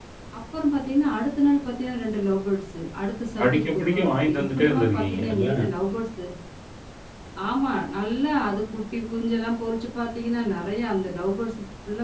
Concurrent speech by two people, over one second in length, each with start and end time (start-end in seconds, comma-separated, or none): 3.4-5.5